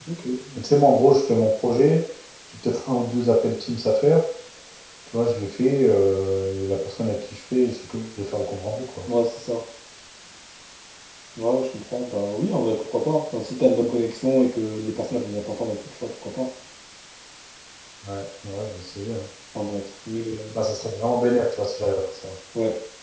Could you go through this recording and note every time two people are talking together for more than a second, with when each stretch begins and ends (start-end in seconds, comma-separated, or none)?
none